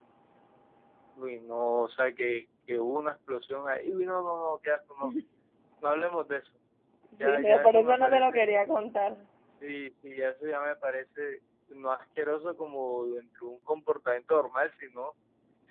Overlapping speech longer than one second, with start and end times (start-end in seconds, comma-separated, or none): 7.2-8.4